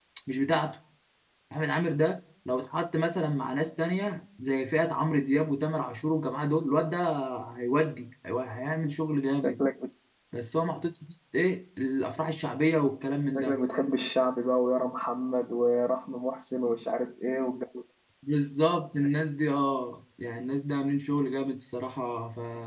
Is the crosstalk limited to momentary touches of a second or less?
Yes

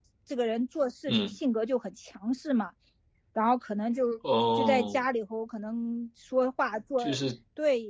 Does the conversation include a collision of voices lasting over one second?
No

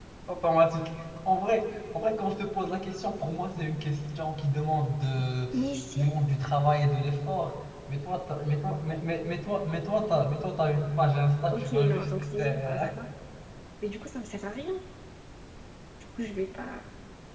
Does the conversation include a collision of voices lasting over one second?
Yes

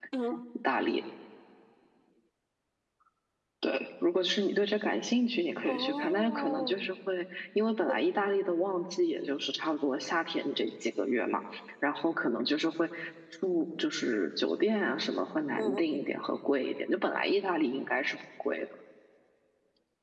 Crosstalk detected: Yes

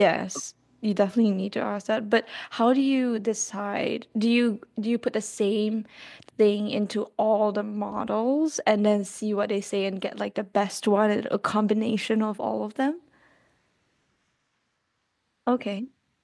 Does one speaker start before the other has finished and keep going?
No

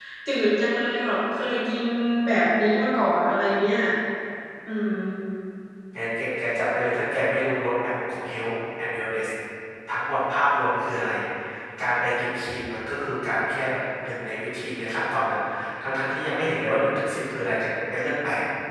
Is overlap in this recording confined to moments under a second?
Yes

